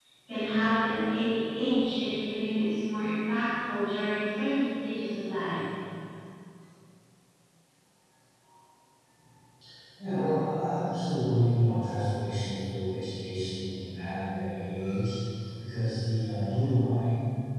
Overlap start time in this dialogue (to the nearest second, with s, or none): none